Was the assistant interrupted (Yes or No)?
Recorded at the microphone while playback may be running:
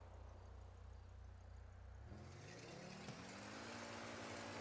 No